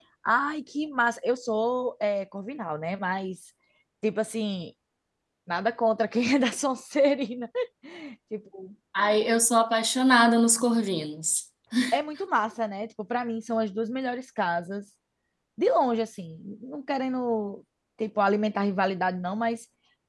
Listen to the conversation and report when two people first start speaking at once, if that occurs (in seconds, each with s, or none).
none